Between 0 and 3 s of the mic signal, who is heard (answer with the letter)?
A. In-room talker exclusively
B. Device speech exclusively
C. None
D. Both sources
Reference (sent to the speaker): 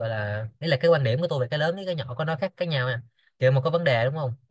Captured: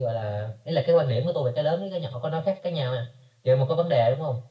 B